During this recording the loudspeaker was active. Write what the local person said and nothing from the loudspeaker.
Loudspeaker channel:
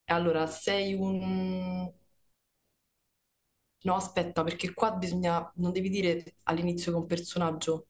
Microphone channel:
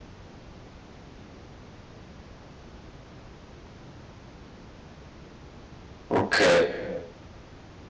Ok,

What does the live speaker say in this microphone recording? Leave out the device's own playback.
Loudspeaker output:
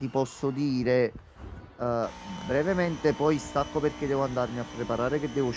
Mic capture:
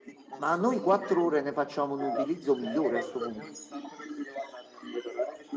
Ma noi quattro ore ne facciamo un utilizzo migliore a sto punto.

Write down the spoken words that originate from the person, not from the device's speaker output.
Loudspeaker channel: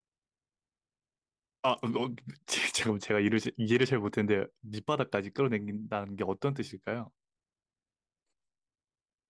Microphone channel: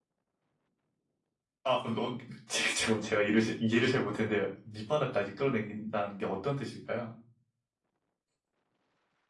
none

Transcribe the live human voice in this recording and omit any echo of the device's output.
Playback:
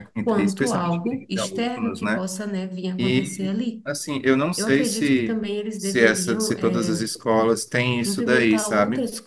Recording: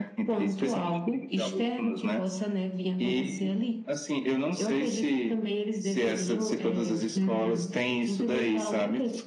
Uhum,

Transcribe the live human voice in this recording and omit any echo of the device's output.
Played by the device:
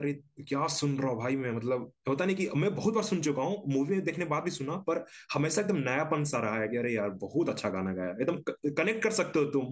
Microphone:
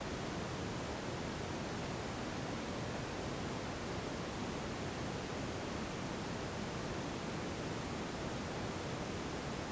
none

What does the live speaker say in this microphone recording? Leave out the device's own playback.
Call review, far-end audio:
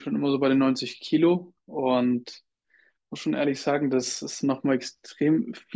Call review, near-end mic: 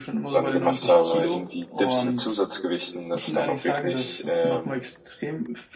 dann gemacht habe, irgendwie Dips mit Zusatzgewichten, dass ich dann auch wirklich ähm,

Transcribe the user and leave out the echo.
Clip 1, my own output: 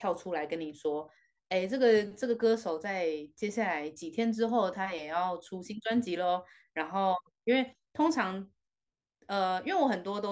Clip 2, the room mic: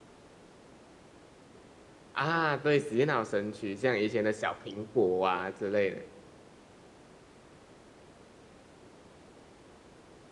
啊，对，洗脑神曲，像以前的小苹果啊之类的。

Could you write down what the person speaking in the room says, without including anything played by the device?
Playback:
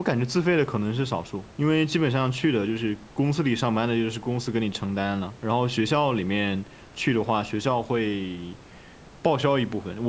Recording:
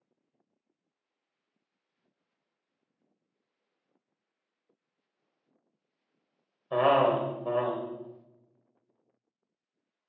啊啊！

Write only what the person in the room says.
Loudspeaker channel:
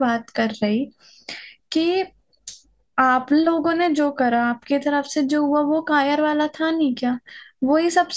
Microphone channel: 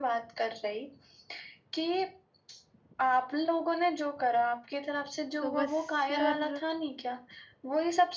तो बस यार

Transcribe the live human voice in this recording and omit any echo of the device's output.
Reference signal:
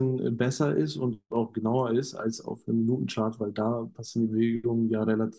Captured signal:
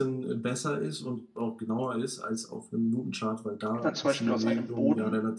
dann zum Beispiel aus einem Boden

